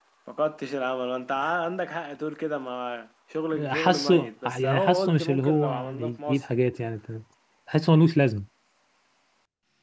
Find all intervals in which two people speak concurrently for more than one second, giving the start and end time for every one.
3.7-6.5

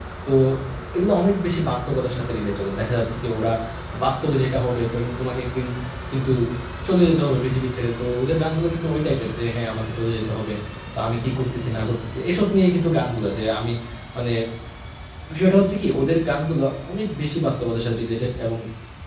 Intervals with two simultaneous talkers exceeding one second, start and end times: none

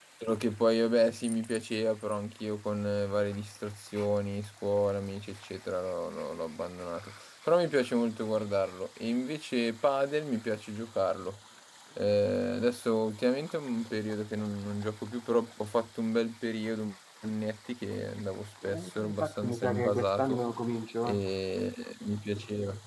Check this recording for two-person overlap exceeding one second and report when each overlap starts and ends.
18.6-20.4

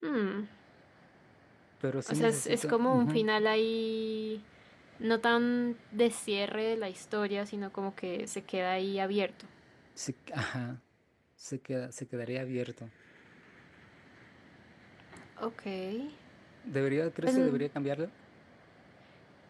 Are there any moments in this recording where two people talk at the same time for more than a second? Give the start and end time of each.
2.1-3.3

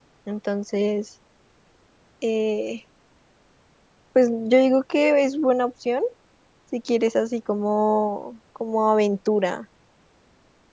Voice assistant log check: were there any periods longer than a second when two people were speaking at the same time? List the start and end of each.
none

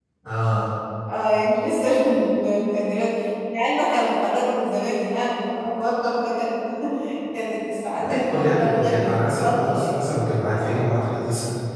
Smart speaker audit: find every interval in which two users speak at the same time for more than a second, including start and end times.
8.0-9.9

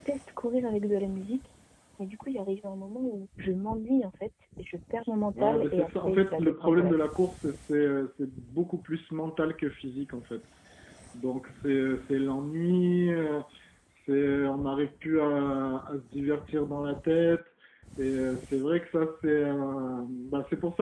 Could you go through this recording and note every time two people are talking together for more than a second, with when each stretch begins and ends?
5.4-7.0

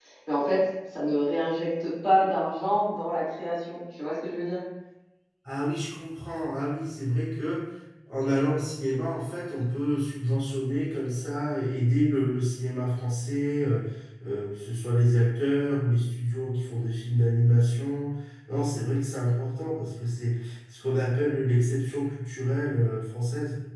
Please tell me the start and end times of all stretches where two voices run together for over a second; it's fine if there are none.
none

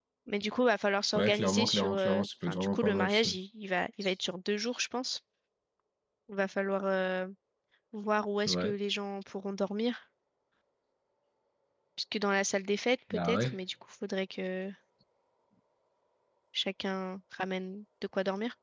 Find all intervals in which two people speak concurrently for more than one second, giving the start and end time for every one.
1.1-3.3

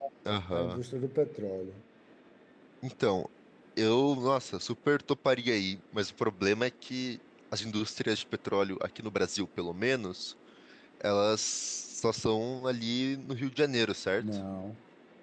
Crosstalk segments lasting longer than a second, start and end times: none

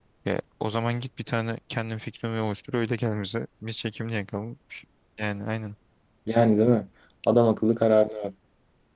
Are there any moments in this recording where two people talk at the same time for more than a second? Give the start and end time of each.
none

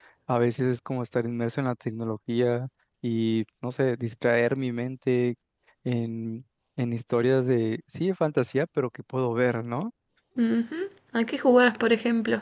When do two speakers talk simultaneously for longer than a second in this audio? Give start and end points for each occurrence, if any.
none

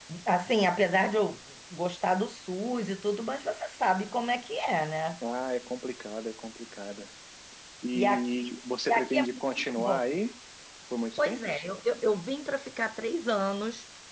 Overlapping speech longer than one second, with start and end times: 8.9-10.2

